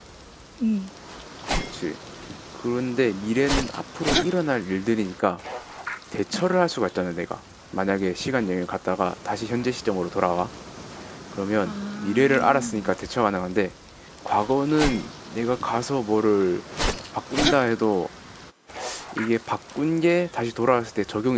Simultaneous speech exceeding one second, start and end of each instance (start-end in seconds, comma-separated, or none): 11.7-12.9